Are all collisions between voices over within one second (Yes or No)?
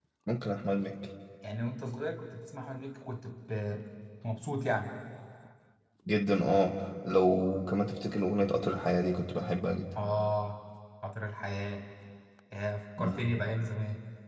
Yes